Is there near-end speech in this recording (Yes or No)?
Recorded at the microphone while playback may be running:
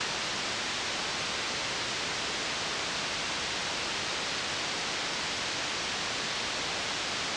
No